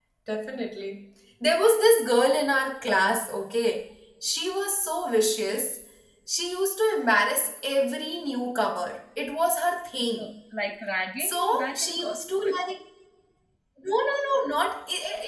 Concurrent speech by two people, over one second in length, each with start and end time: 11.2-12.4

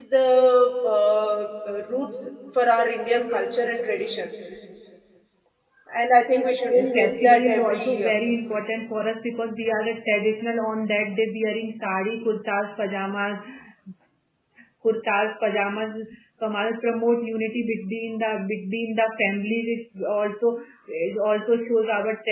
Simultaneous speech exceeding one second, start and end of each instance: 6.7-8.2

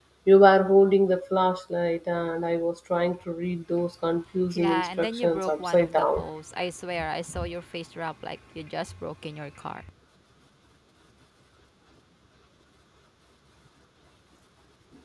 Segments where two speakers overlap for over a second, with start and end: 4.5-6.2

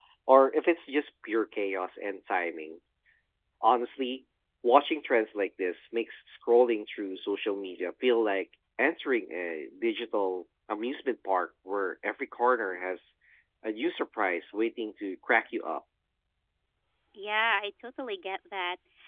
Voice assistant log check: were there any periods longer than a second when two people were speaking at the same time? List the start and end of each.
none

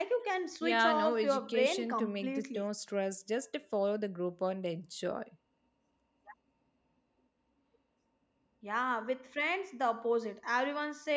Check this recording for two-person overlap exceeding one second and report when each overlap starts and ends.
0.6-2.6

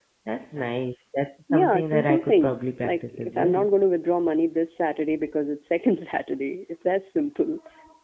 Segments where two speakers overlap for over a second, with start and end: 1.5-3.6

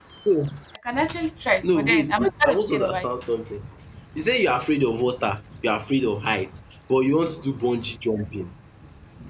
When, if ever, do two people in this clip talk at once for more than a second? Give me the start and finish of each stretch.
1.8-3.0

